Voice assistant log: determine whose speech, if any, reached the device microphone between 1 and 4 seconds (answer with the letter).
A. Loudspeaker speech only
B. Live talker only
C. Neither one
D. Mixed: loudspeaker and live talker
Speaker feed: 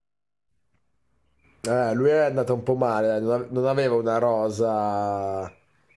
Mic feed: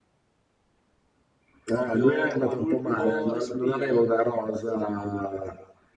D